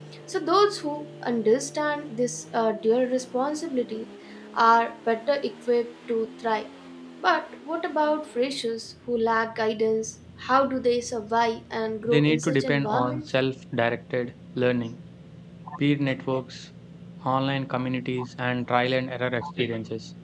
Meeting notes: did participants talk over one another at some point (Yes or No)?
Yes